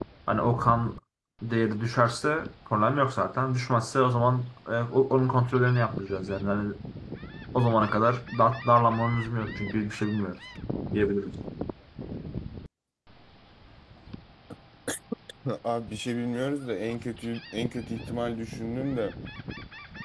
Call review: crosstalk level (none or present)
none